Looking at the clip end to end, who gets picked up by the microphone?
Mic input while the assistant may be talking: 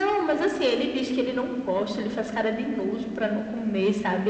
echo only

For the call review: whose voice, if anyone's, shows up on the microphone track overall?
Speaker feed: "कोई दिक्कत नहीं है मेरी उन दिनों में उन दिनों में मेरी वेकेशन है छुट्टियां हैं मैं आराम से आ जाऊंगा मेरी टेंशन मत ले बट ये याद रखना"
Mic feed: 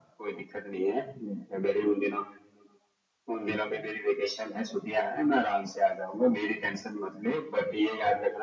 echo only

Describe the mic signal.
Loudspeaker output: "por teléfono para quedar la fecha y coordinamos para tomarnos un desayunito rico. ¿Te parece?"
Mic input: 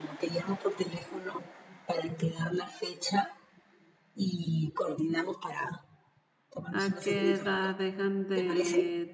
both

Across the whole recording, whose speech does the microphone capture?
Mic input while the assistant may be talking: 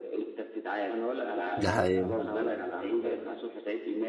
both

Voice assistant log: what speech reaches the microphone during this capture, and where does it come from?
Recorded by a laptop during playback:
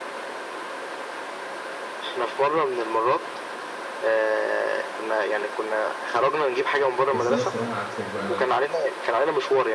both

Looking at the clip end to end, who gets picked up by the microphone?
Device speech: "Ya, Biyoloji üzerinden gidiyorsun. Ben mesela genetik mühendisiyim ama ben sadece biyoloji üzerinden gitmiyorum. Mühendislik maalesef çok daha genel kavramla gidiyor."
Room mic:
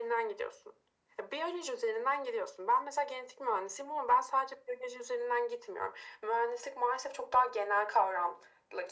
echo only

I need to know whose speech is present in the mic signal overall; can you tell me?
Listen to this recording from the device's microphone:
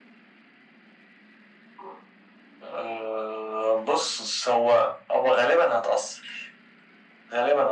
echo only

